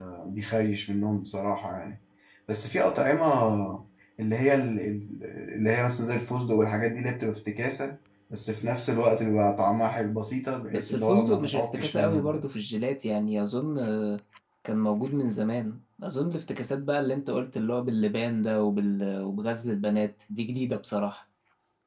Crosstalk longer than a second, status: present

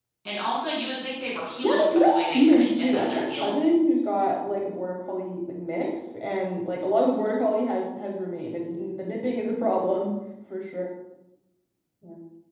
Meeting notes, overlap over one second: present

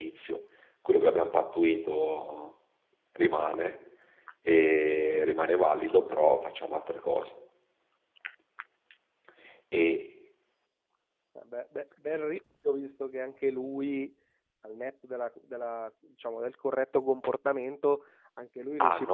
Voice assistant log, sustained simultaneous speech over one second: none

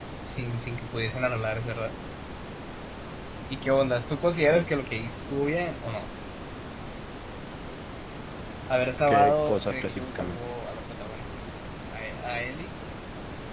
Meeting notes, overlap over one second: present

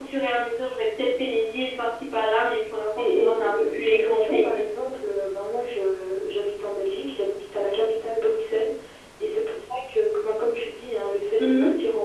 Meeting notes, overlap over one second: present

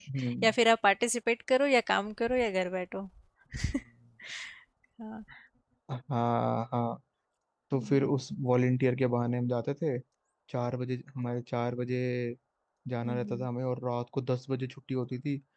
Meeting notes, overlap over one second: none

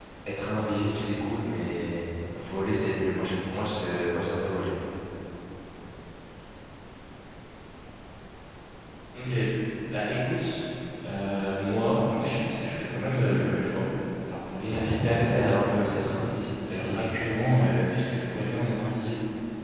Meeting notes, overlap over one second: present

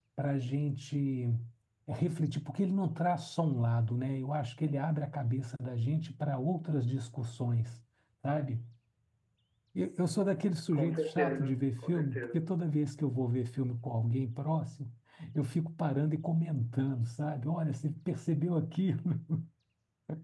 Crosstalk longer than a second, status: present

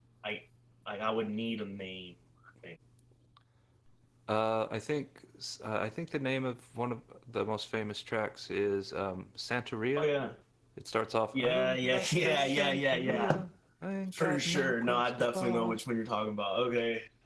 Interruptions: present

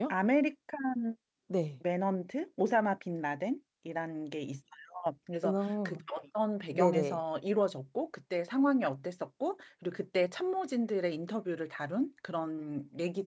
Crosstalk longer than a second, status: none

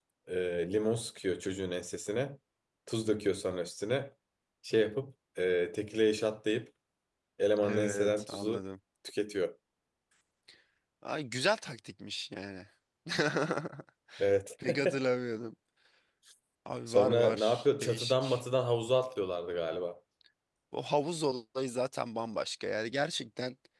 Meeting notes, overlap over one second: present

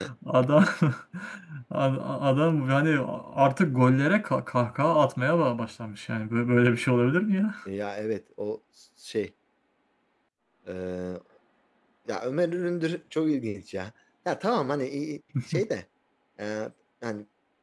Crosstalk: none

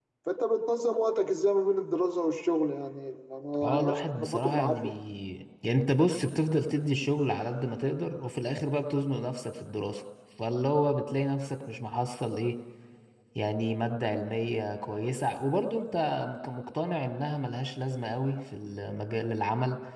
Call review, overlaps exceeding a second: present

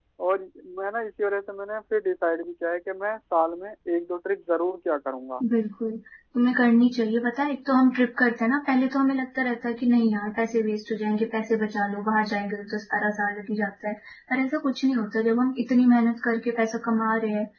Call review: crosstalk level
none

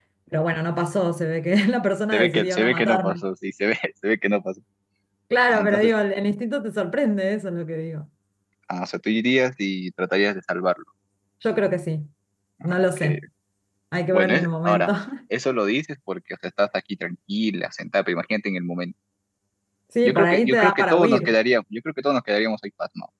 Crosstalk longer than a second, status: present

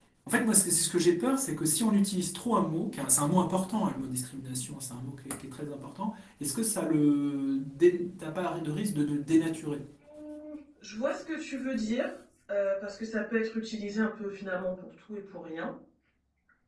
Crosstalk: none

